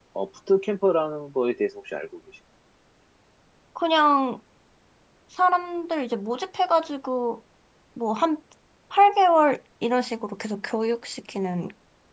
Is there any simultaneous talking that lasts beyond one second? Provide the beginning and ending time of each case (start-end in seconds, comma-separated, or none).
none